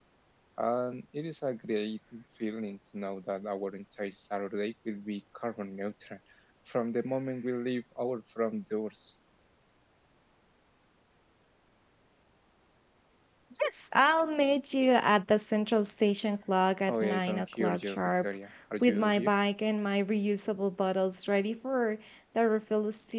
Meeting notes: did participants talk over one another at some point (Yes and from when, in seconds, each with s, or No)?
Yes, from 16.9 s